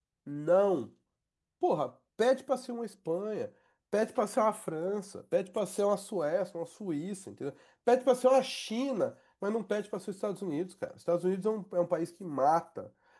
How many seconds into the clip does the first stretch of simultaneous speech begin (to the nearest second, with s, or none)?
none